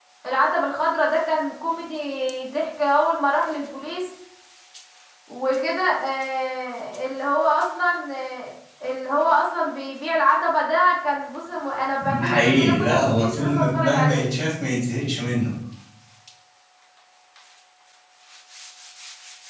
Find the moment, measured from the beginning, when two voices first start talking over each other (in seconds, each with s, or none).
12.0 s